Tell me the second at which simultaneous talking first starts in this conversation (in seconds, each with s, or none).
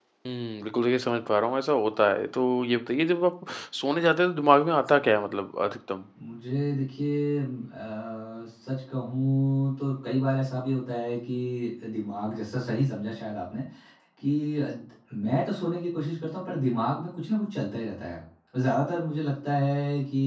none